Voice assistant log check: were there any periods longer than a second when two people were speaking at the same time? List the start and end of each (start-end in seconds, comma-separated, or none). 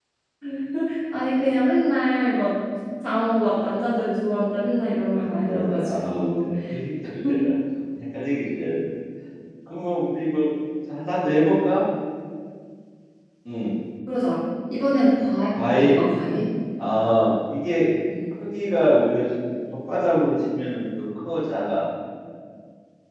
5.2-6.5